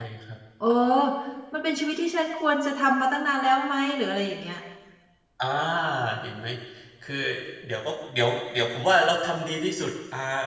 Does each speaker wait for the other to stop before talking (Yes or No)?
Yes